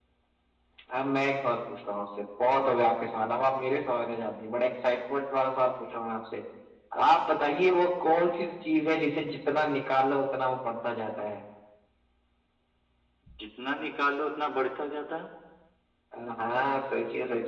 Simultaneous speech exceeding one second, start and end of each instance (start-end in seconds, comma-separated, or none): none